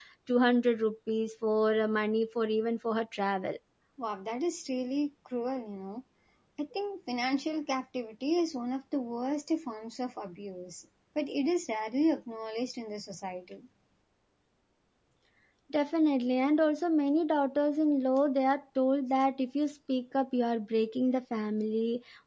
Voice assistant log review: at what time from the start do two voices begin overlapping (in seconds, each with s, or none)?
none